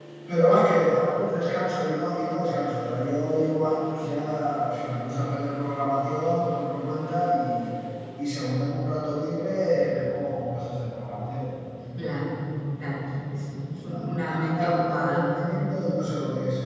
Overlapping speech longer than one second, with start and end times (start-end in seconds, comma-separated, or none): 13.8-15.2